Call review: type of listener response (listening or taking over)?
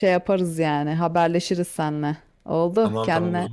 taking over